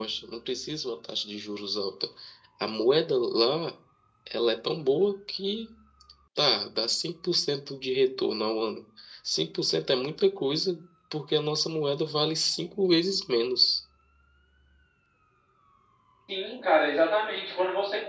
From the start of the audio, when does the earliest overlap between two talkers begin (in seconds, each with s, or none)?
none